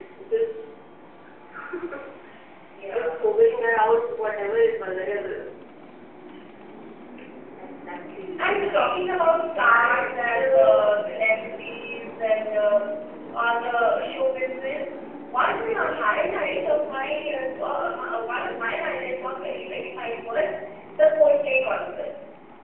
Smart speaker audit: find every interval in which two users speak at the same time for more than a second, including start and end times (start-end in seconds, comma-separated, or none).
9.7-10.9